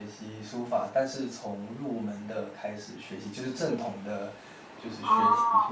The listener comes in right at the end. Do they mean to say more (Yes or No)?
No